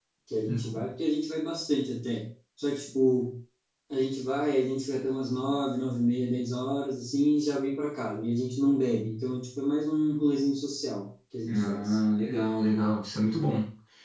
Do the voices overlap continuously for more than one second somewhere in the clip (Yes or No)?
No